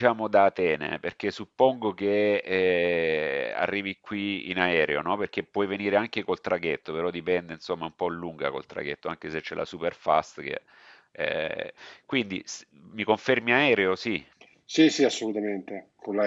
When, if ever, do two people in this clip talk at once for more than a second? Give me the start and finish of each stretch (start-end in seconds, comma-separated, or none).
none